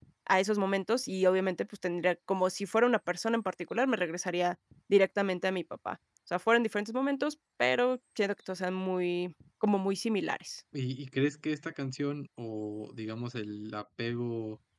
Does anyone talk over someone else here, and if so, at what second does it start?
none

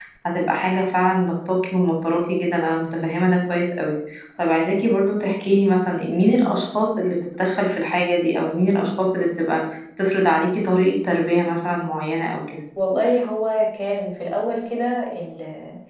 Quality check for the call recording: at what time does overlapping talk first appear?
none

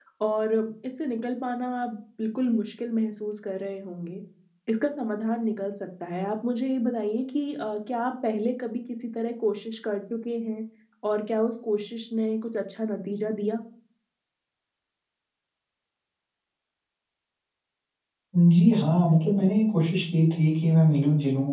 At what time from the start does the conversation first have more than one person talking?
none

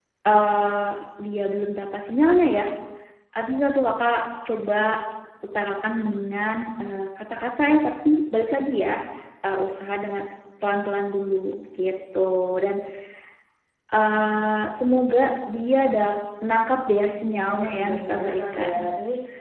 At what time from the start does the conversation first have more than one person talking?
17.5 s

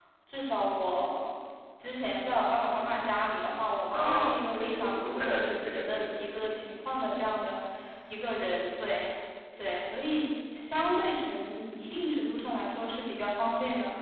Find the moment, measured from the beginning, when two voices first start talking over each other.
3.9 s

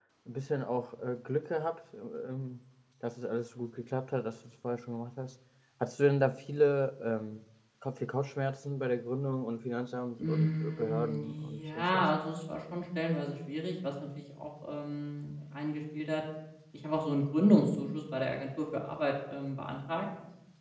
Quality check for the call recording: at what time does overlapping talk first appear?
10.2 s

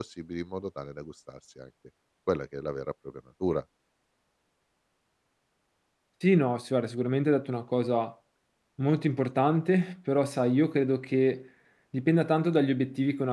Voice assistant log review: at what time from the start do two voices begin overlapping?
none

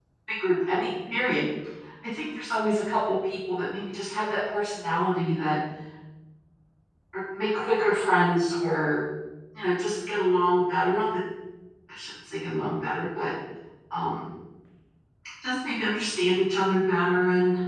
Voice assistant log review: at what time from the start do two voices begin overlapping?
none

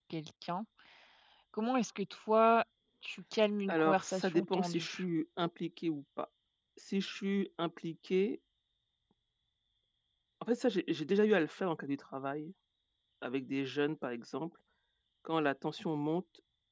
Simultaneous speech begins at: 3.7 s

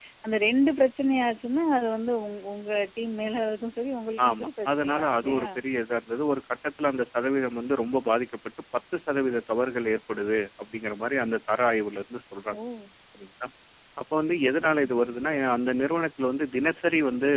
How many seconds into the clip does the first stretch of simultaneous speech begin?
4.3 s

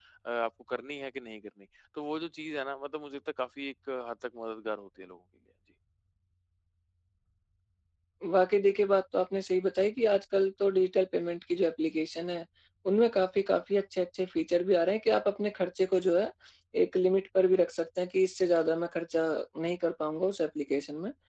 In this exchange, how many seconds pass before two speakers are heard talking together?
none

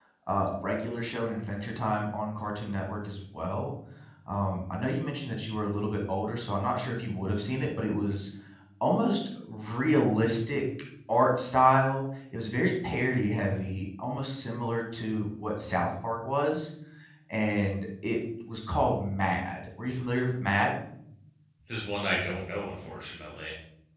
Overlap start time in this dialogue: none

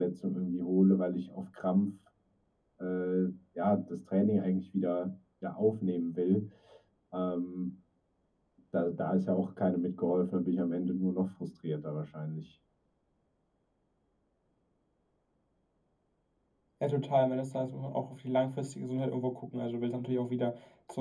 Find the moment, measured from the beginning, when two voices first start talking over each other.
none

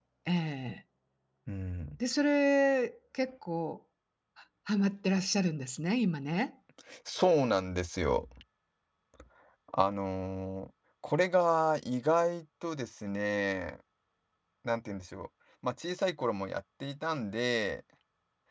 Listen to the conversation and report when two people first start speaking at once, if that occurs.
none

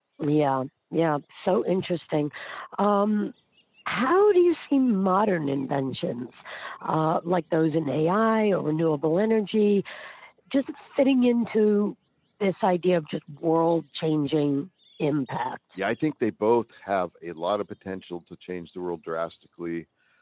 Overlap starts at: none

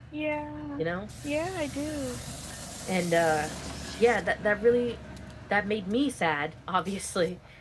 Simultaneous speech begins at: none

